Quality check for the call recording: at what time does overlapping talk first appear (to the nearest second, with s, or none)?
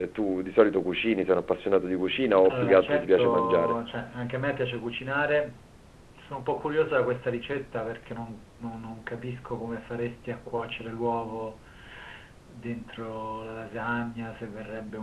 2 s